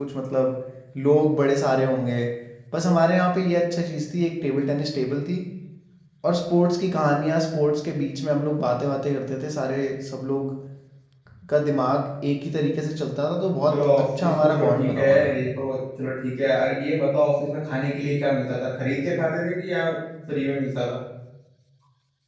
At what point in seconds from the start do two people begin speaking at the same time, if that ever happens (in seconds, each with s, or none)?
13.7 s